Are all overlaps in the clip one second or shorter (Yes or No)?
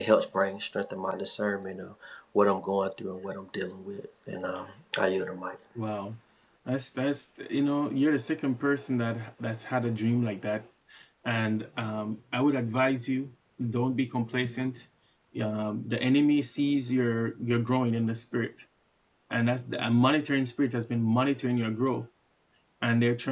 Yes